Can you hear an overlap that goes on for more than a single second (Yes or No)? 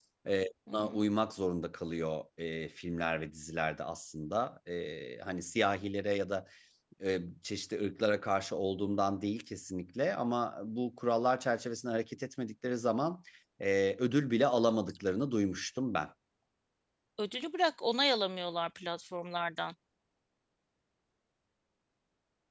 No